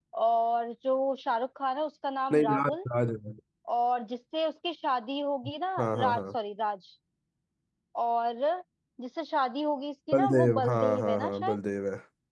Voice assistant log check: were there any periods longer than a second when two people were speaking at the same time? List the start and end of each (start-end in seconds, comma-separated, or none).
10.1-11.6